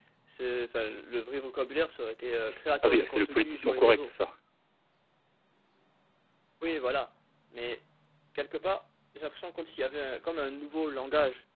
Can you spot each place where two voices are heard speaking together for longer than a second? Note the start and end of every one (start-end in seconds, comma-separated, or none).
2.8-4.1